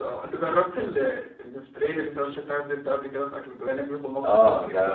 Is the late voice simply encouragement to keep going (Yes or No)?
No